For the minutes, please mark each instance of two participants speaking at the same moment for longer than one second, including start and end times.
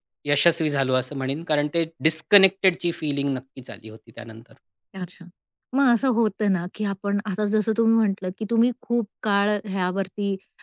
none

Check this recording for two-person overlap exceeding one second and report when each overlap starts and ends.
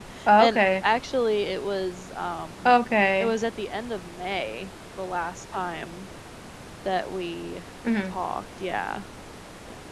none

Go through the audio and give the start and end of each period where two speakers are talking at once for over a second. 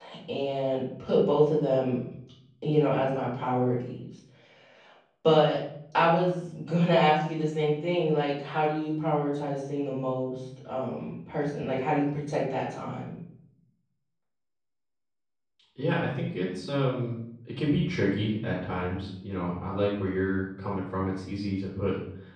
none

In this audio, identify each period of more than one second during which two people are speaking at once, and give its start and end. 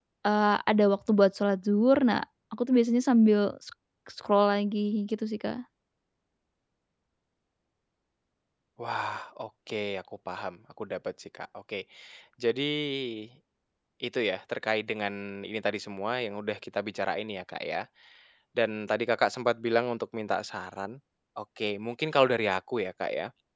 none

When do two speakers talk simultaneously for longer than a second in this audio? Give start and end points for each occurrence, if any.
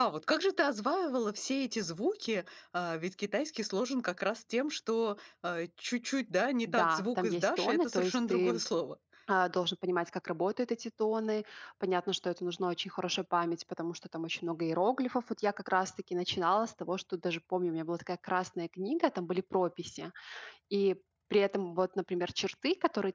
6.7-8.6

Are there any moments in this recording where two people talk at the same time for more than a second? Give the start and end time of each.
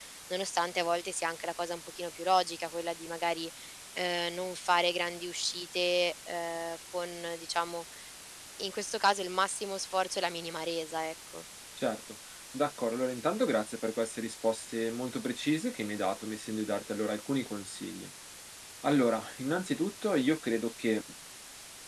none

